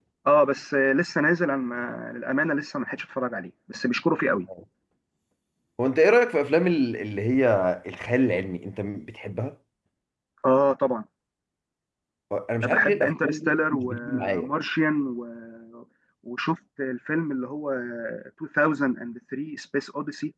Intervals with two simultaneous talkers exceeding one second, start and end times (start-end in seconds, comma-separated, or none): 12.6-14.5